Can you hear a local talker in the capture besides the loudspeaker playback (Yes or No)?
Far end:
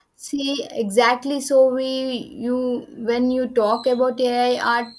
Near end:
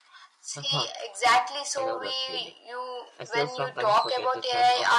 Yes